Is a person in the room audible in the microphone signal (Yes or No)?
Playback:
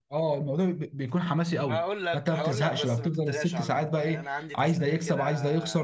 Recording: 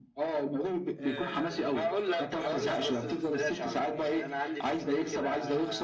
Yes